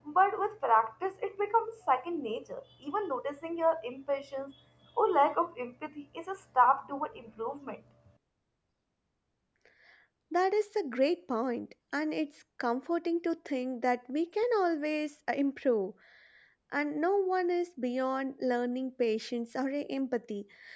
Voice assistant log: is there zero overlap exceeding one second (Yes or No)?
Yes